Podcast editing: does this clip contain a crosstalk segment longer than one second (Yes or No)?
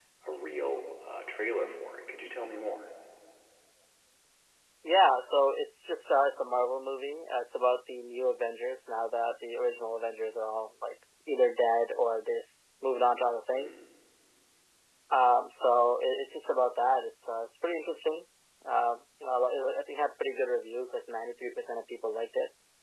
No